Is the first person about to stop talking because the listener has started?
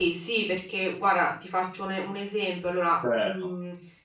No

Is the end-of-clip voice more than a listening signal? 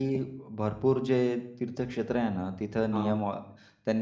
No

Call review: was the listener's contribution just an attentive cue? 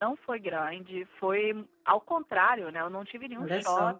Yes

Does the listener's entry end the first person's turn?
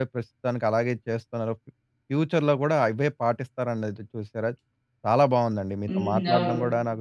No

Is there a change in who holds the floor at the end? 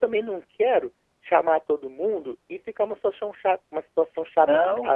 Yes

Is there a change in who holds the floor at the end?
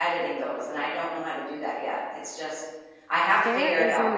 Yes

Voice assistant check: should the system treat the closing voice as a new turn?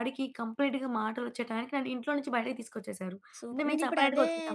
Yes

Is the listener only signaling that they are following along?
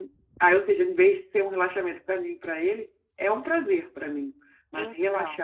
Yes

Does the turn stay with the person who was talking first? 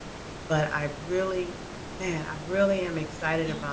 Yes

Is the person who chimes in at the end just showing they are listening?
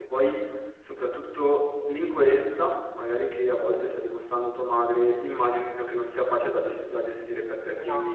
Yes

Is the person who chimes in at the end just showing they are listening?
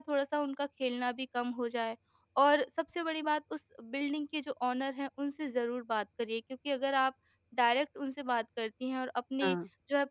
Yes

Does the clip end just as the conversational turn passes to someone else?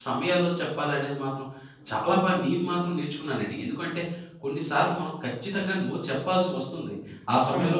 No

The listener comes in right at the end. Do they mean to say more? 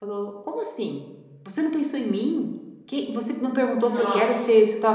No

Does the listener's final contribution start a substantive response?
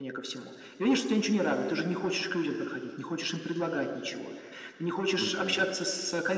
No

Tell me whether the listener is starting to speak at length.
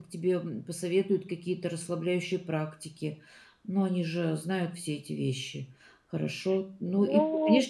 No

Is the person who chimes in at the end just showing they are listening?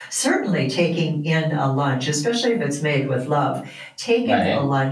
Yes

